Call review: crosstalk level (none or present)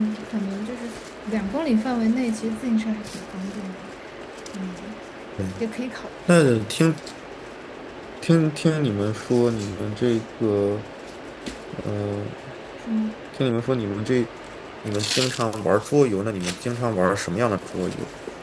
none